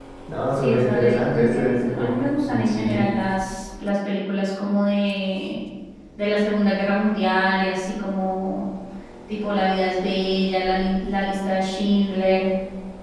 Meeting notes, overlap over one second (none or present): present